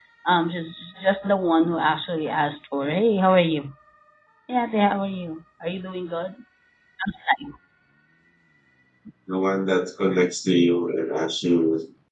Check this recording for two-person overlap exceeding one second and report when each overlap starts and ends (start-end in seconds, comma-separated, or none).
none